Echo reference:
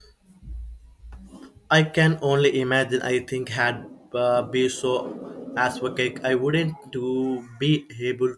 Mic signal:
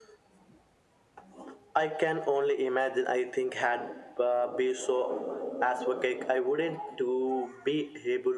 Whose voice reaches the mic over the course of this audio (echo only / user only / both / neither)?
echo only